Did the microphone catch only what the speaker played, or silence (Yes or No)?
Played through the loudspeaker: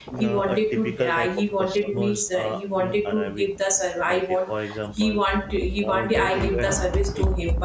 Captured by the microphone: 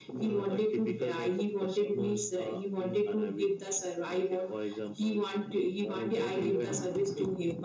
Yes